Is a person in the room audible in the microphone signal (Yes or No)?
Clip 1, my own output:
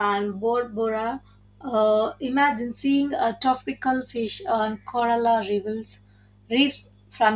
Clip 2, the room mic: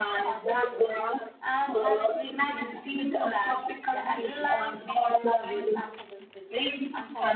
Yes